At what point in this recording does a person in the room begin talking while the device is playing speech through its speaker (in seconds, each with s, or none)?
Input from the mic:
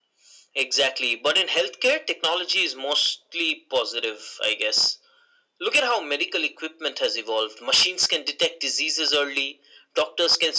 none